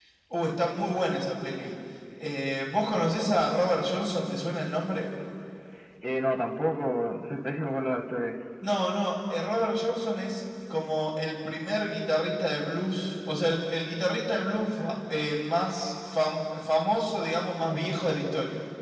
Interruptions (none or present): none